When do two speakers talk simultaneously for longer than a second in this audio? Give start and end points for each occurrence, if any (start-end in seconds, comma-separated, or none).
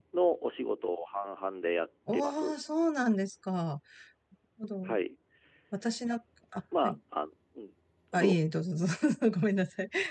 none